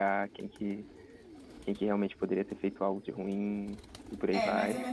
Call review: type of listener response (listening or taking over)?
taking over